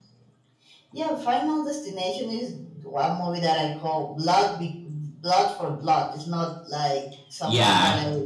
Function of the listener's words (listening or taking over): listening